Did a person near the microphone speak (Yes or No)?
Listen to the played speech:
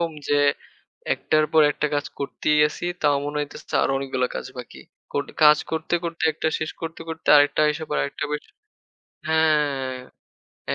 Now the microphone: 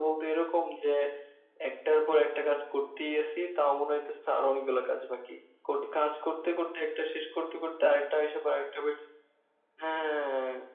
No